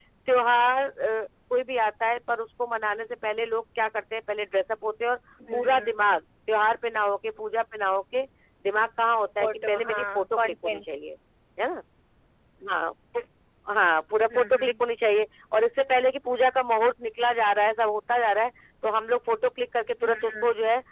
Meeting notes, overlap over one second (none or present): present